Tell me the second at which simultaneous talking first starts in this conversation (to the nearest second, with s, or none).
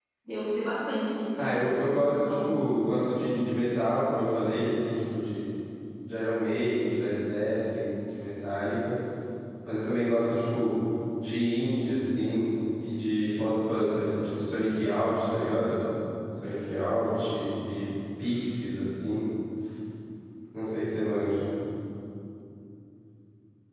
1 s